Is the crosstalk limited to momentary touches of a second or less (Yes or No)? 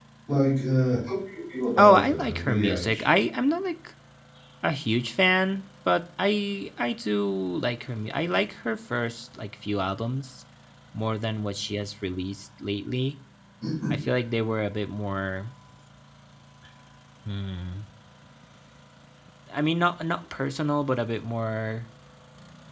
No